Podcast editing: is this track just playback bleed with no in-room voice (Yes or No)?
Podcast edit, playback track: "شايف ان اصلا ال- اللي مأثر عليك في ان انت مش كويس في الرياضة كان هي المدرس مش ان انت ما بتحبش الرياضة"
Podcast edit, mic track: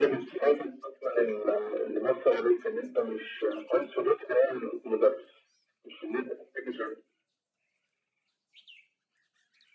Yes